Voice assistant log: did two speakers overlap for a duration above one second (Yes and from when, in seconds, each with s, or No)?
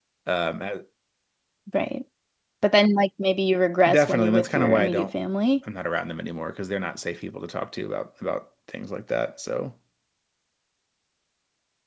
Yes, from 3.9 s